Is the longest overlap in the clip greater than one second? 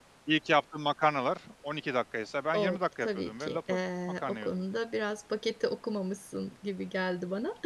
Yes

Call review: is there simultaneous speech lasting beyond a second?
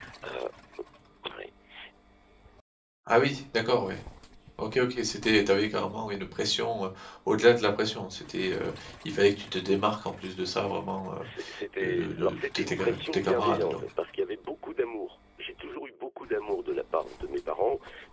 Yes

